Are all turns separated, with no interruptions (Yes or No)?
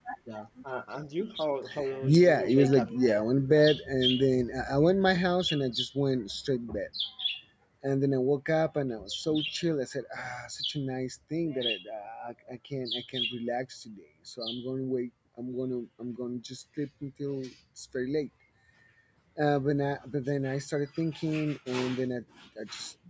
No